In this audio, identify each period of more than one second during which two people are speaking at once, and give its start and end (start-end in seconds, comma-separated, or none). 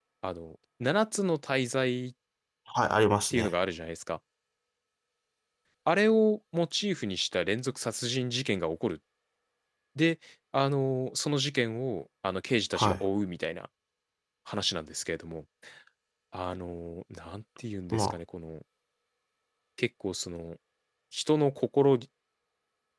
none